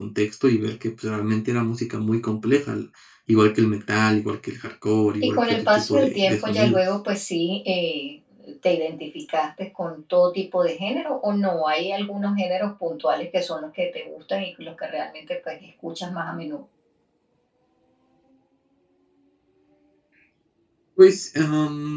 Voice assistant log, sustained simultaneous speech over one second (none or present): present